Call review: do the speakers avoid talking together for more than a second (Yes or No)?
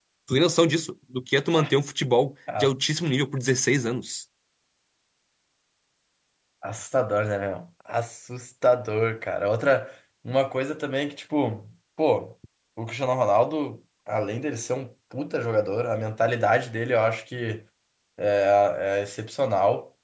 Yes